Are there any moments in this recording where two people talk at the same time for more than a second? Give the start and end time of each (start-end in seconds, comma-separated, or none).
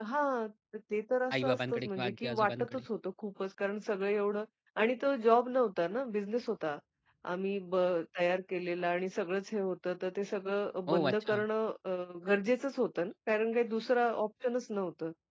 1.4-2.8